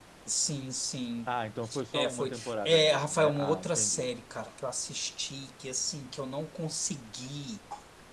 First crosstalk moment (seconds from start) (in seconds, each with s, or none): 1.9 s